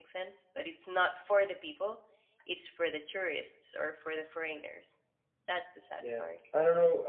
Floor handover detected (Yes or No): Yes